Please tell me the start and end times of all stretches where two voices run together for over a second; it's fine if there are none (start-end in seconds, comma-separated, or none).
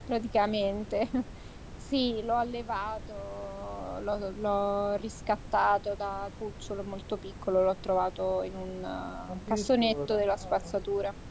9.5-10.7